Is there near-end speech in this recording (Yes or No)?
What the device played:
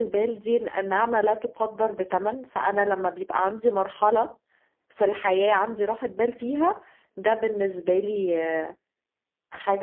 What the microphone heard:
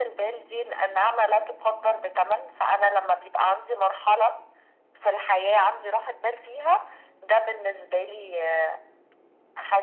No